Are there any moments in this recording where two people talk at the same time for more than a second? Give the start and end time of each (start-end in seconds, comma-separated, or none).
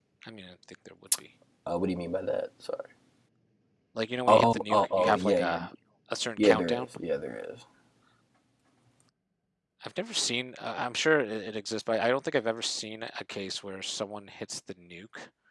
4.3-5.6